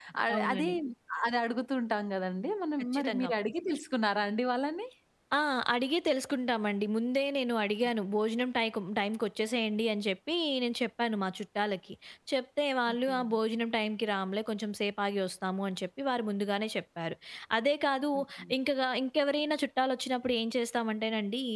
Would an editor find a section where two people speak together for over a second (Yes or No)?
No